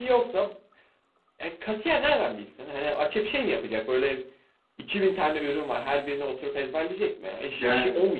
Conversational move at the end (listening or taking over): listening